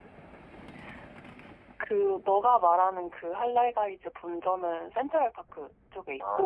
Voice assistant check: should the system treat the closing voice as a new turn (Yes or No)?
Yes